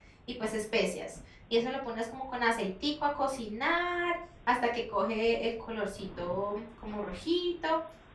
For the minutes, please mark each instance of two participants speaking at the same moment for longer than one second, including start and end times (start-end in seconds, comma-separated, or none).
none